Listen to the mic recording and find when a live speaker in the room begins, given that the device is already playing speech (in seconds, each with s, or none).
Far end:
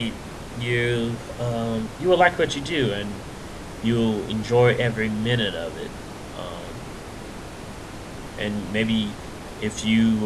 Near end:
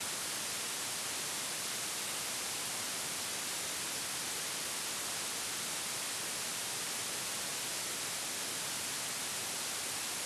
none